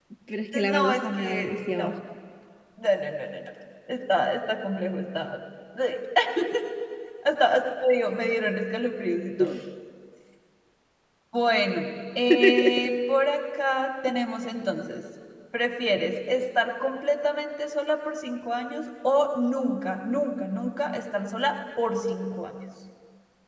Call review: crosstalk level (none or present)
present